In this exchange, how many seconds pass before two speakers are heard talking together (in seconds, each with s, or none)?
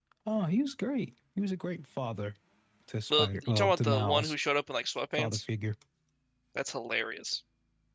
3.1 s